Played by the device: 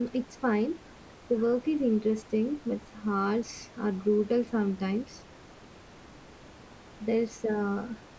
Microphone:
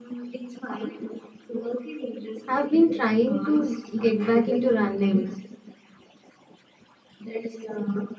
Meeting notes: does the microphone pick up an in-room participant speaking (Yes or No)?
Yes